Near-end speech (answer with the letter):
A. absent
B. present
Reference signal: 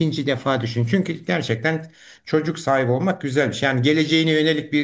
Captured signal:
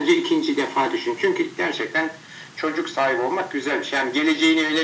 A